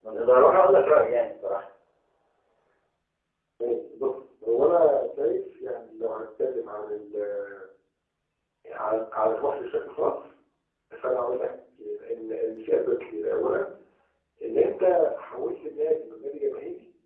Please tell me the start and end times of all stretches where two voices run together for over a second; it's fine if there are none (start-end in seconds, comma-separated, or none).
none